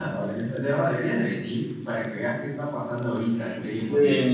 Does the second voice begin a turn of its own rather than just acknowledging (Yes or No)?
Yes